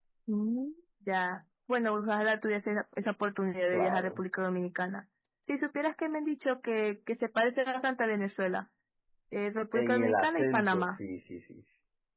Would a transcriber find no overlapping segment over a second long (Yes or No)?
No